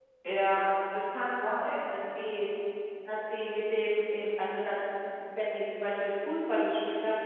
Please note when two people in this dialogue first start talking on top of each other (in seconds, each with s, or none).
none